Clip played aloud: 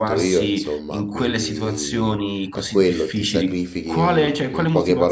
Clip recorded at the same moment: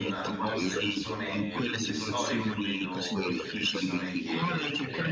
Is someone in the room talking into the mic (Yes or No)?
Yes